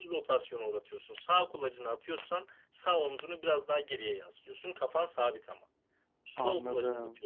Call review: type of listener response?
listening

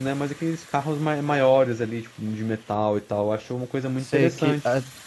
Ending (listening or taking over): taking over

